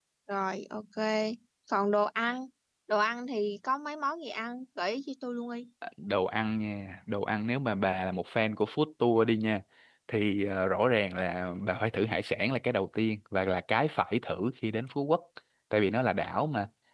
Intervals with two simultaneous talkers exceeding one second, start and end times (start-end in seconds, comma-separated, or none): none